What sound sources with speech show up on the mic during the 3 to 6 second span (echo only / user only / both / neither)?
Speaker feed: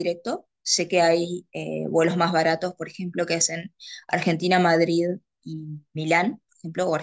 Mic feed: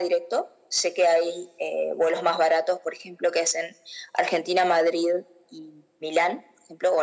echo only